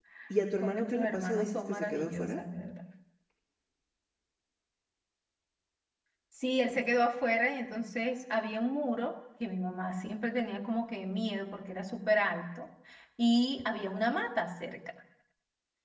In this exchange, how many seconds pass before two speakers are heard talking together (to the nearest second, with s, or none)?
1 s